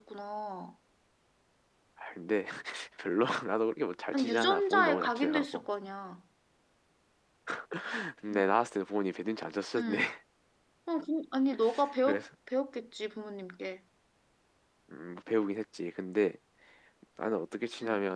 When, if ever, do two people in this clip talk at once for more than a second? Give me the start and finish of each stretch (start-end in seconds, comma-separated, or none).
4.1-5.7